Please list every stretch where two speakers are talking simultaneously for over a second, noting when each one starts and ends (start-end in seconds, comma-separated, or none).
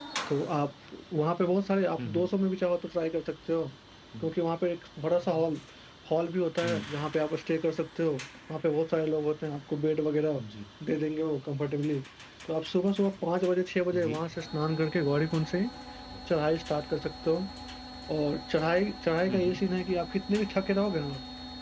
none